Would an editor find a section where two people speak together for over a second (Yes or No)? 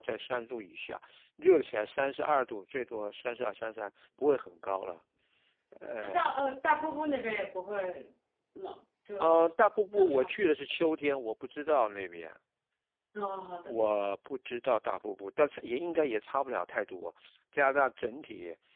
No